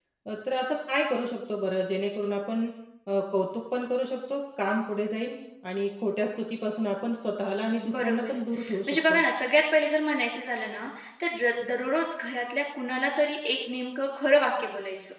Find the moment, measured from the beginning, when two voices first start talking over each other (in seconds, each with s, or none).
7.8 s